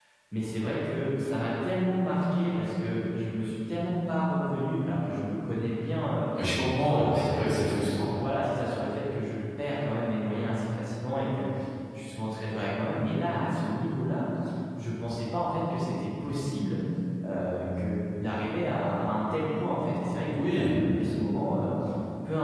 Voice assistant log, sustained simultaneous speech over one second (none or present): present